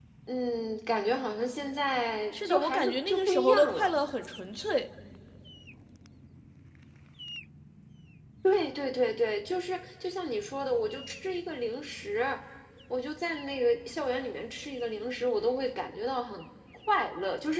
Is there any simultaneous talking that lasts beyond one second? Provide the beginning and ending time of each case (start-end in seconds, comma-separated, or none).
2.4-3.9